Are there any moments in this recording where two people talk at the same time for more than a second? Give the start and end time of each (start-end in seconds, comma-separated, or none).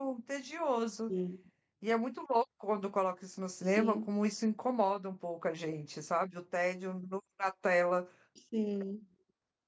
none